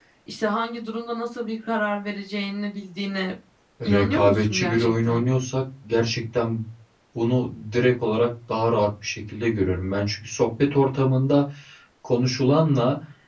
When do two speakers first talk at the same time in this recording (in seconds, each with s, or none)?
3.8 s